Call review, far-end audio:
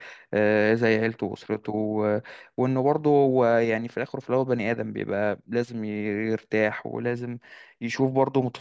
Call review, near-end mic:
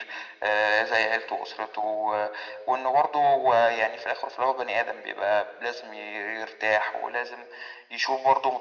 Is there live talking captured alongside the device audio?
No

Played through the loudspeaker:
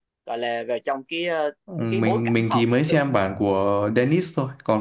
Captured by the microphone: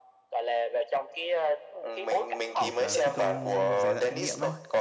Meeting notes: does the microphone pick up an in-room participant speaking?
Yes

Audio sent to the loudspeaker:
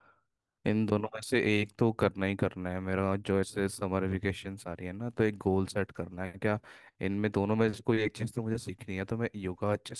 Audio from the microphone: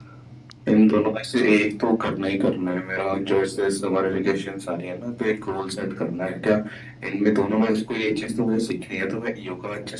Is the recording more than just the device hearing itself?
No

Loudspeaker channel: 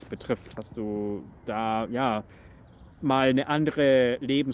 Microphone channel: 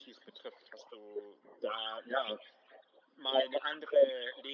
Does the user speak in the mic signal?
No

